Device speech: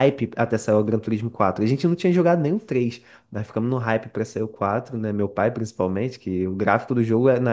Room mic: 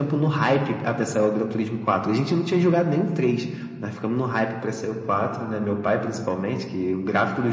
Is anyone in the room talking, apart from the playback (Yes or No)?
No